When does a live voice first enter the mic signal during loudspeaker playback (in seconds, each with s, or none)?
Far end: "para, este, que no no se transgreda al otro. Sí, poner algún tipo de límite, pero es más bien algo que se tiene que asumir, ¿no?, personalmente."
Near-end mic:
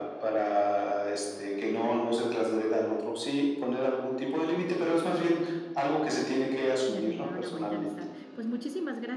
6.8 s